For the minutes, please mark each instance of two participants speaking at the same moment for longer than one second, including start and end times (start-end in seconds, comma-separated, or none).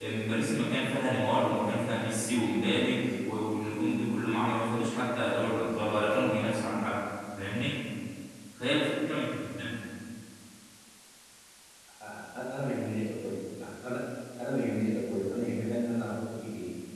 none